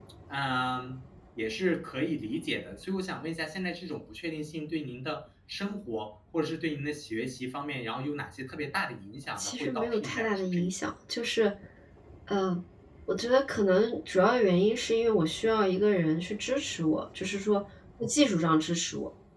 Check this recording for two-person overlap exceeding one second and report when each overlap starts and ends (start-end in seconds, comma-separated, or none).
9.4-10.7